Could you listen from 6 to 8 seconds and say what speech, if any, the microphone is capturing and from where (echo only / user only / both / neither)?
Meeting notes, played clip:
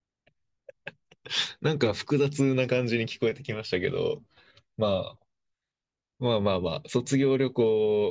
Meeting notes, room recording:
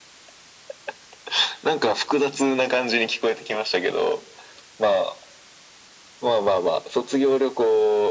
echo only